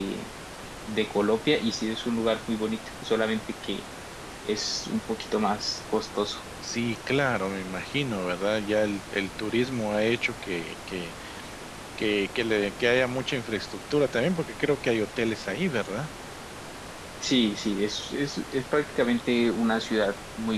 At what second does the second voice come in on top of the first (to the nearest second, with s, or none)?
none